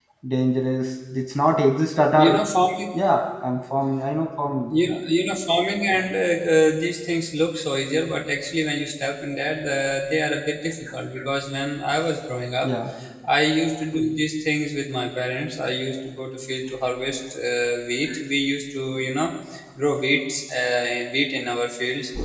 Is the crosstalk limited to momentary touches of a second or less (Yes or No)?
Yes